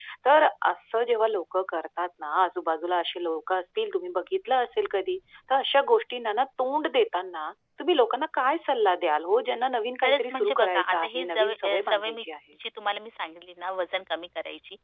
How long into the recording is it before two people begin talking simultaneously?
10.0 s

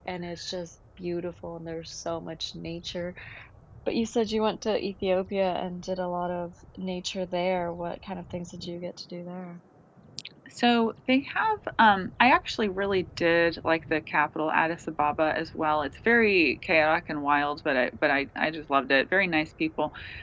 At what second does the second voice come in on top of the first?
none

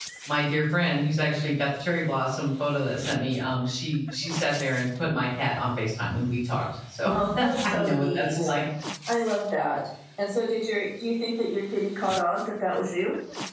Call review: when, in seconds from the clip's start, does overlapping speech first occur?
7.1 s

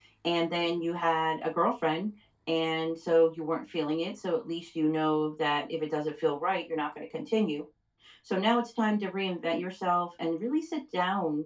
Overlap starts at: none

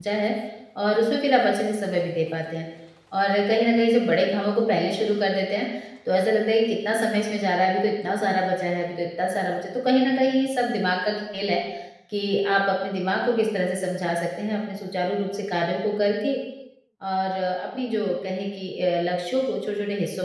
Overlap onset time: none

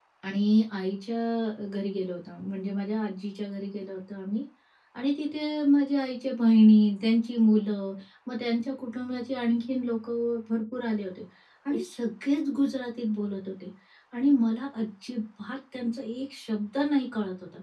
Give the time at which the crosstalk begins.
none

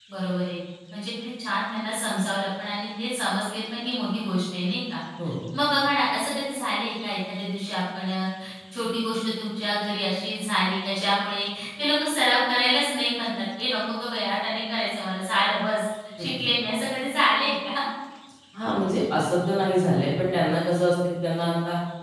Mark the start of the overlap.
none

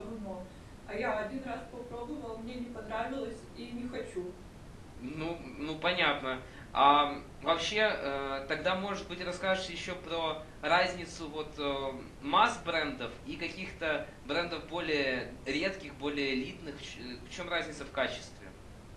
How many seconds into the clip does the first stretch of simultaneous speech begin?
none

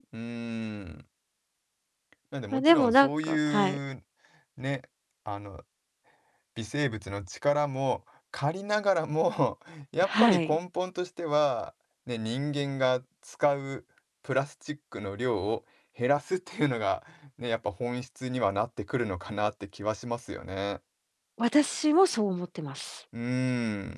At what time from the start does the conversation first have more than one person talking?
2.5 s

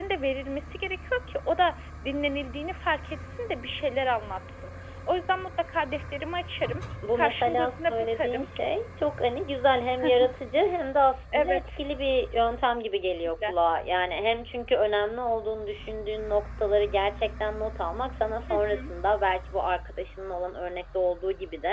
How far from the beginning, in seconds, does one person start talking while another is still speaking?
7.2 s

